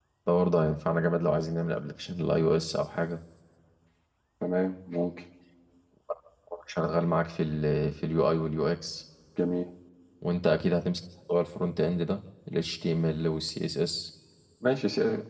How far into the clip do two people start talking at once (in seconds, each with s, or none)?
none